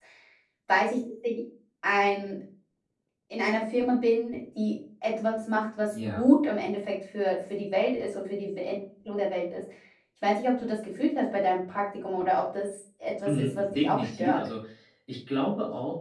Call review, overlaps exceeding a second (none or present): present